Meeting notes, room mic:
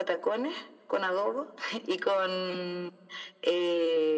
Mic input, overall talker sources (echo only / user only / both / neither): echo only